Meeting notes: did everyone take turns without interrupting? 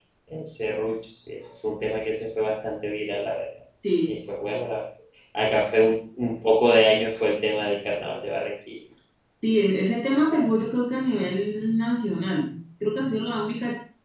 Yes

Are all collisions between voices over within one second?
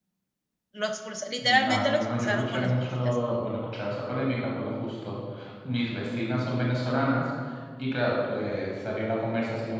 No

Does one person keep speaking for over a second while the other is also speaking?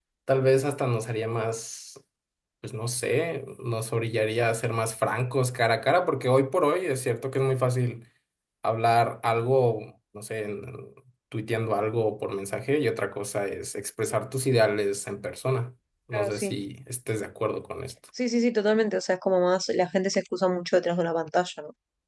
No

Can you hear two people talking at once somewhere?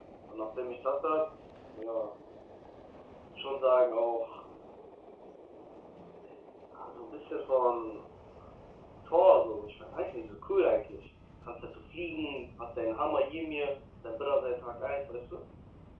No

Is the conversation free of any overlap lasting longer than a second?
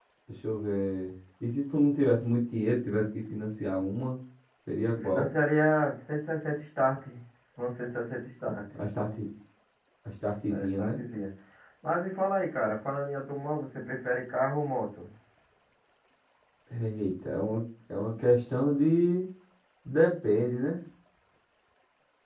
Yes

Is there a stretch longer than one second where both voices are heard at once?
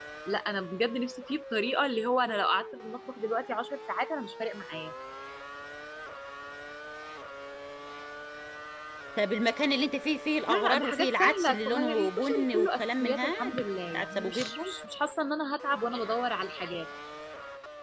Yes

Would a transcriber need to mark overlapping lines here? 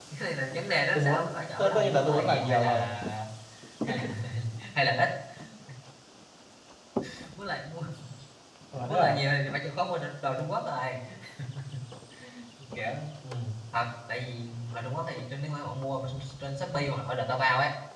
Yes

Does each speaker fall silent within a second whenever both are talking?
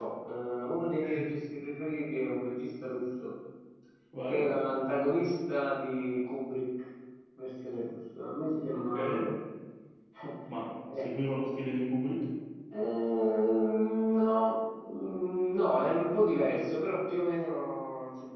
Yes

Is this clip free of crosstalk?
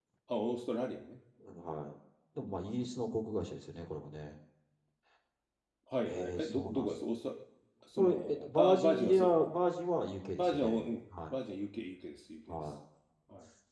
No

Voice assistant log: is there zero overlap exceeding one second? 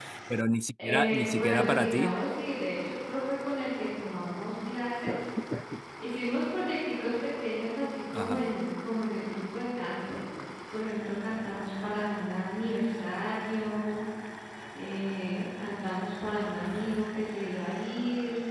No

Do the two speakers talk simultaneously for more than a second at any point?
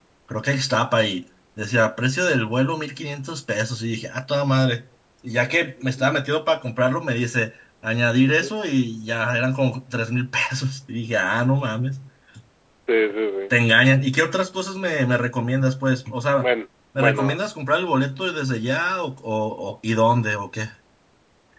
No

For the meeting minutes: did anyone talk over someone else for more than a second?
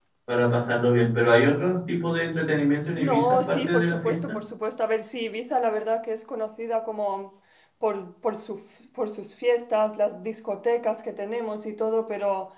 Yes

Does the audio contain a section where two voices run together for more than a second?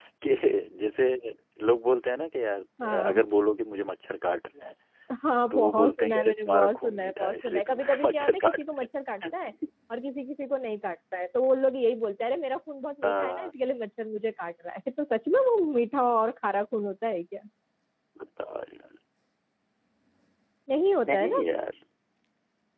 Yes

